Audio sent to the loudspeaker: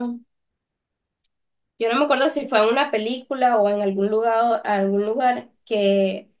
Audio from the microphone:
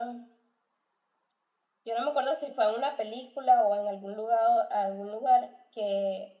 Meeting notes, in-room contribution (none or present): none